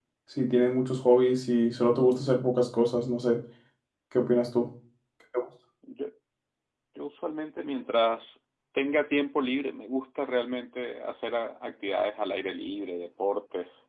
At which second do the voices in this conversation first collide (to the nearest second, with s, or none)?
none